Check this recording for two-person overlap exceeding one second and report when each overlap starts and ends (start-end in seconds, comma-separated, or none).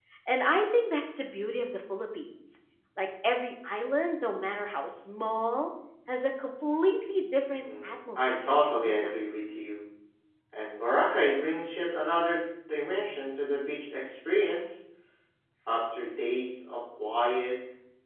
7.6-9.1